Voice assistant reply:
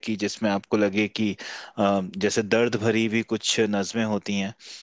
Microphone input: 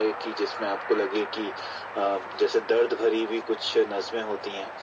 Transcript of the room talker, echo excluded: none

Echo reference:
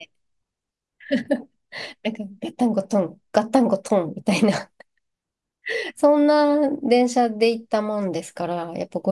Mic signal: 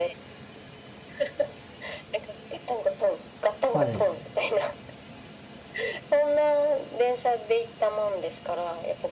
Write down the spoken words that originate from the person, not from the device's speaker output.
はい。

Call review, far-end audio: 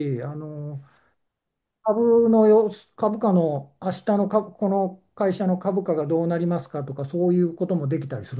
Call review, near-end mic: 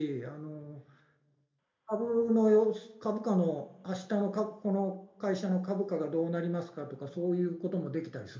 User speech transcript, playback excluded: none

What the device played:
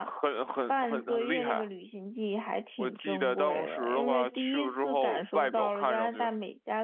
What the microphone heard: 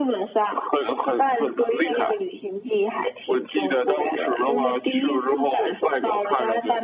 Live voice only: none

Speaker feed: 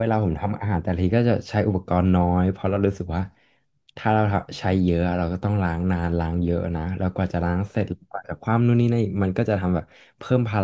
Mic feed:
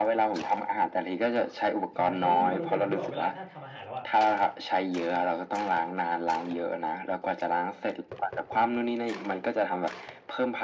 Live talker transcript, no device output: ใช่ไม่รู้พี่วาโลเป็นเหมือนพี่เปล่าเวลาถ้าทำอาหารแล้วอะ

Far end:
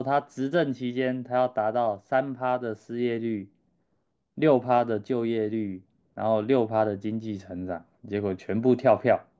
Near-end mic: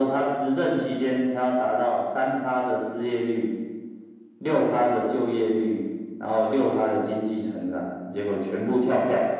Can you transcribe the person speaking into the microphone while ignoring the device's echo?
none

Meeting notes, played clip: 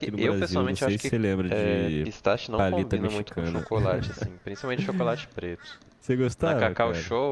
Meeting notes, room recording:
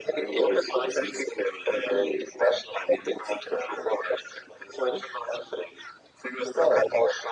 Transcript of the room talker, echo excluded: none

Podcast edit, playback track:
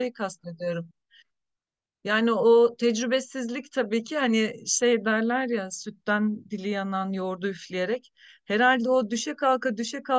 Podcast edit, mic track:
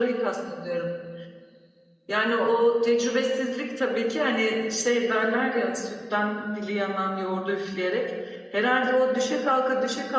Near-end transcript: none

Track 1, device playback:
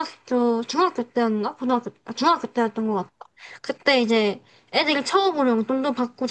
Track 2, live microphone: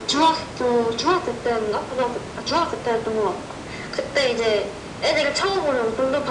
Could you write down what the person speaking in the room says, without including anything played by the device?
none

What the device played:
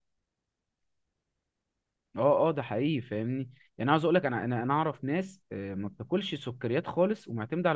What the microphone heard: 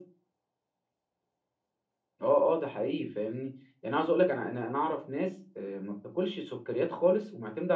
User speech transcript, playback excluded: none

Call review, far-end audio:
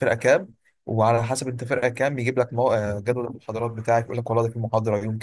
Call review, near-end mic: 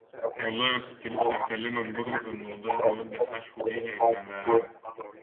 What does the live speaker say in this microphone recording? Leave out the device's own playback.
والله انا كنت لسه هكلمك برضو في الموضوع المواد الحشو دي لان ما

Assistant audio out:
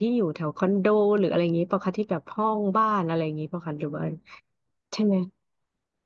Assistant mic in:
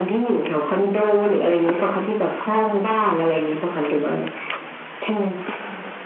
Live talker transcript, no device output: none

